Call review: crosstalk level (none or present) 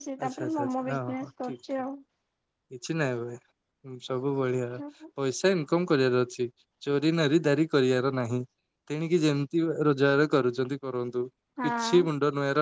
present